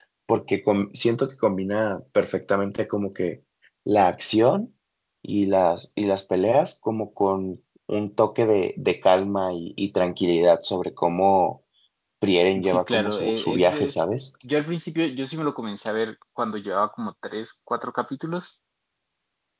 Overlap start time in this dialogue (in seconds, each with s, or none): 12.6 s